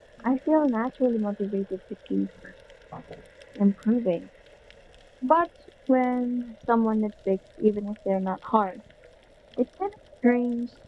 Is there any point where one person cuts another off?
No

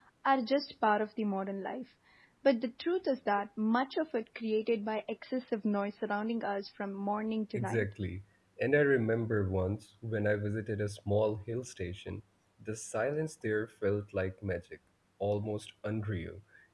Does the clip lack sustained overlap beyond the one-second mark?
Yes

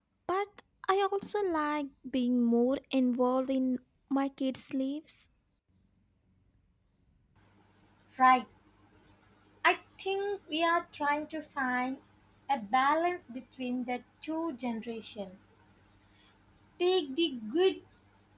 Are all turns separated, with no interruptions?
Yes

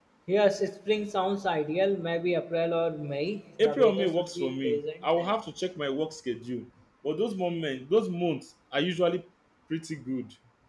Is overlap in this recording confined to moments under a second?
No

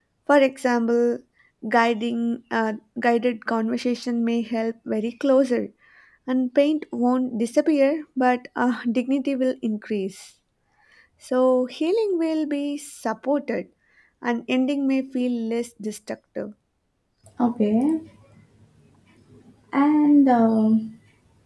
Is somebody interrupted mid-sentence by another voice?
No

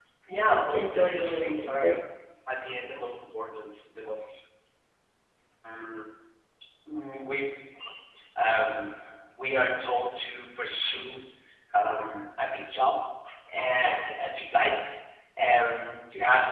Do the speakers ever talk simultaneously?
Yes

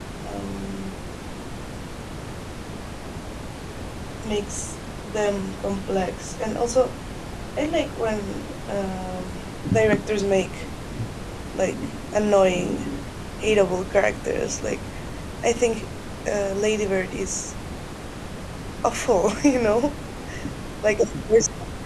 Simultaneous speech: No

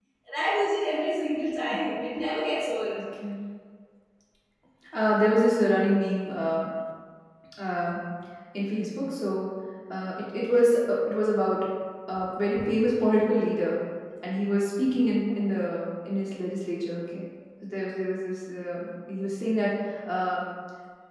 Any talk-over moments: No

